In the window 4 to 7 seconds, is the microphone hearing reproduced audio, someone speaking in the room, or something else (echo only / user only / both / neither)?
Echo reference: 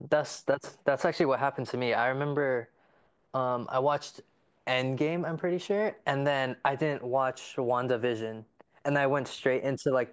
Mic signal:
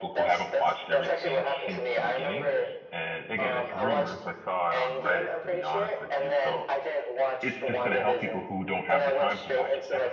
both